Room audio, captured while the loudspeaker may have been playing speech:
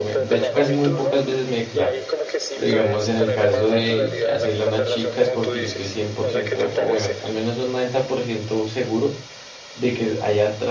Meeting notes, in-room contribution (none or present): present